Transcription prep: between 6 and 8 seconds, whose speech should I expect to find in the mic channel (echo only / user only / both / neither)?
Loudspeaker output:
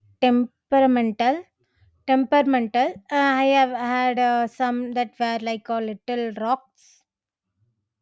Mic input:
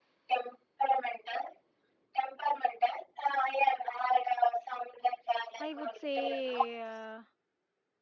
both